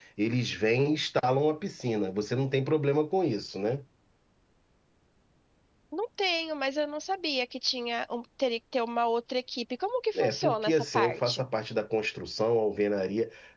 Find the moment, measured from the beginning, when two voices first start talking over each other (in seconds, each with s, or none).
10.2 s